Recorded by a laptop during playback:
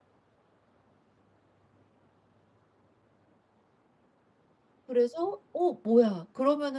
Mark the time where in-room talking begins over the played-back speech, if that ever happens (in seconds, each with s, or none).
4.8 s